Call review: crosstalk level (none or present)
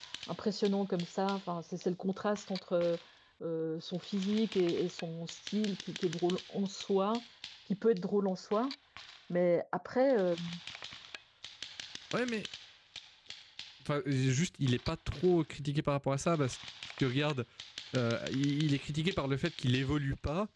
none